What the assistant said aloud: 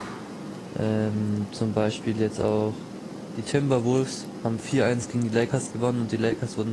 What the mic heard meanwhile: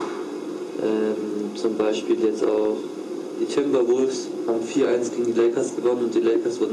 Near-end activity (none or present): none